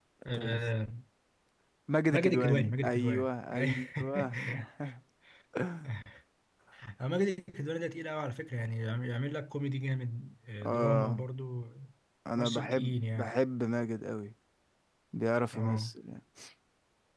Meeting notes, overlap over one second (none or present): present